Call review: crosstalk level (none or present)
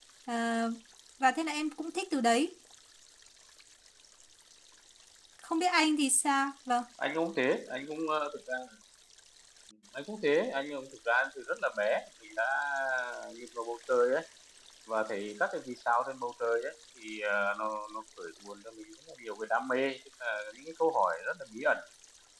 none